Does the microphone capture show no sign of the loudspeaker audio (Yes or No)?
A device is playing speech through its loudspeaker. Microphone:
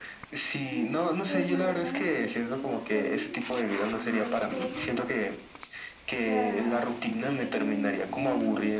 No